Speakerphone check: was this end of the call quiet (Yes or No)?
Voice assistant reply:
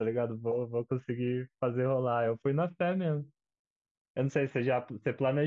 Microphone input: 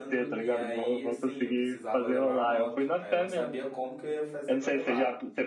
No